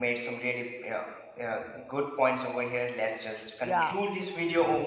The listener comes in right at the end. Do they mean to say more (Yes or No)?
No